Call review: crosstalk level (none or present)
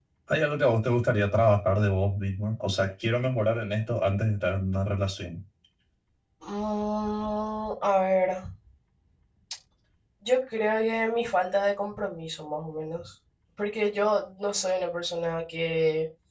none